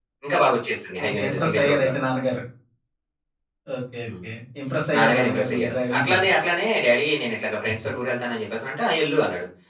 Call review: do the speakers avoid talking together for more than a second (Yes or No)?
No